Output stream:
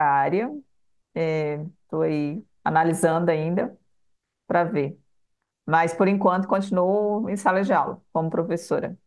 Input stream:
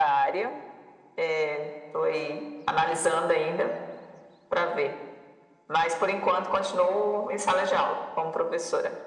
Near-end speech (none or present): none